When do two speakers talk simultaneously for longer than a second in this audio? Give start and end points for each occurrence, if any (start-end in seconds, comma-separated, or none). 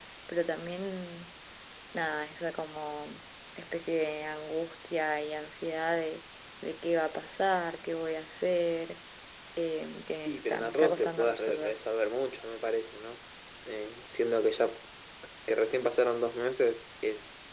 10.2-11.8